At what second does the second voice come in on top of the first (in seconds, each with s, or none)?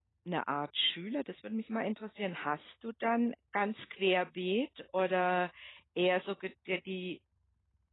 none